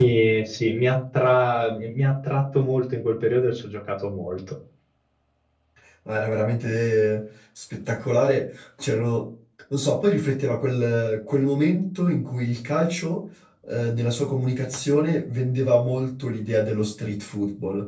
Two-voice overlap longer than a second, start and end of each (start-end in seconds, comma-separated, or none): none